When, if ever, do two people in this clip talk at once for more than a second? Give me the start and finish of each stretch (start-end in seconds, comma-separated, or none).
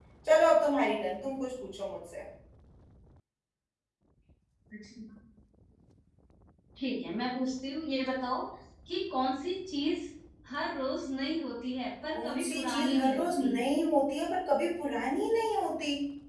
12.2-13.5